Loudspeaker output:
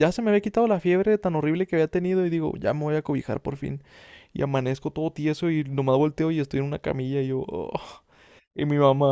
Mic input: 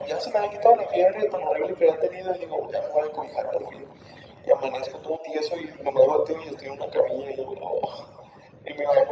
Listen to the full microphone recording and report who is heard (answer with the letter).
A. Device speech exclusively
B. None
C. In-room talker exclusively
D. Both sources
A